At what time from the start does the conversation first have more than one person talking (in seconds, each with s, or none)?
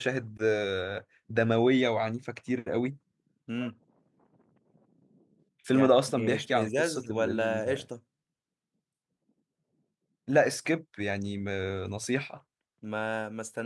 5.7 s